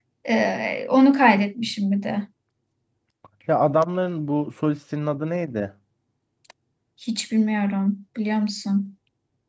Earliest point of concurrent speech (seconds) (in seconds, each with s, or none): none